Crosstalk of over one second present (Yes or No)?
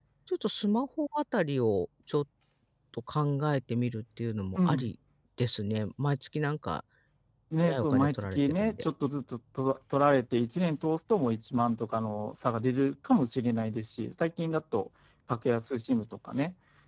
Yes